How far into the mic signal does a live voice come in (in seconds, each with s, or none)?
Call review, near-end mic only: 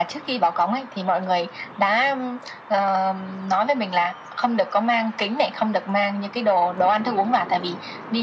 none